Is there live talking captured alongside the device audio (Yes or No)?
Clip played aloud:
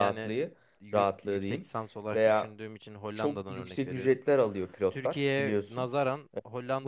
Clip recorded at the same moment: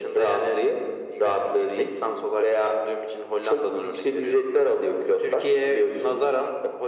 No